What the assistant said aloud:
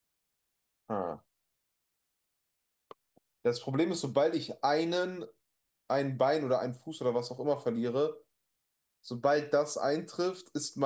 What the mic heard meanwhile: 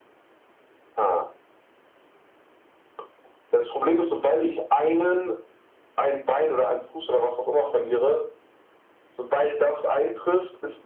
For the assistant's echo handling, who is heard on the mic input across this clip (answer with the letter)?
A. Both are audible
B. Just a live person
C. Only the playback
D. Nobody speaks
C